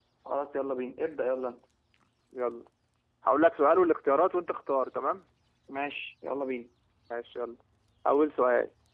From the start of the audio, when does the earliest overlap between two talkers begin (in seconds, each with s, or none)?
none